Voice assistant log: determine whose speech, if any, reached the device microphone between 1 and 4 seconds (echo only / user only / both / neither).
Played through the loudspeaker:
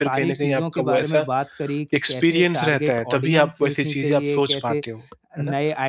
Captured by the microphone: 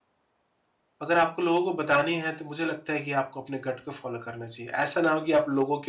user only